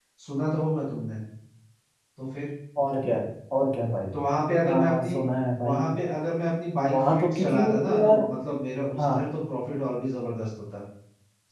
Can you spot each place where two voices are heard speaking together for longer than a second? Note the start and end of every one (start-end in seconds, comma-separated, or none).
6.9-8.2